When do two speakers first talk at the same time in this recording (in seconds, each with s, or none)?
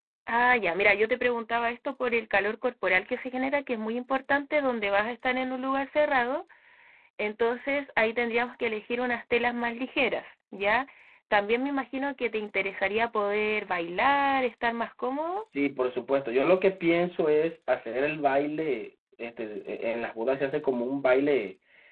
none